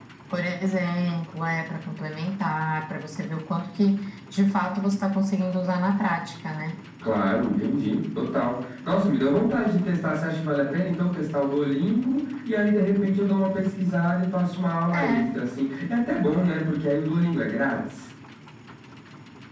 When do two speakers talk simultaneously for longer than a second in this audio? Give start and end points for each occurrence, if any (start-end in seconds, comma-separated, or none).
none